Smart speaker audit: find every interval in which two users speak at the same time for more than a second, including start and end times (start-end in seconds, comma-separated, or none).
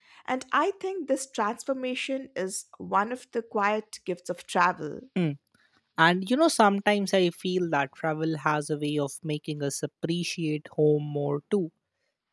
none